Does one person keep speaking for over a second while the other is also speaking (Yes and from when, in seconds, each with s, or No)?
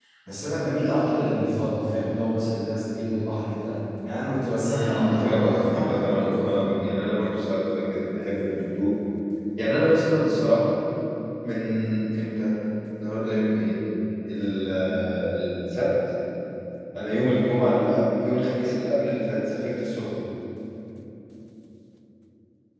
Yes, from 4.6 s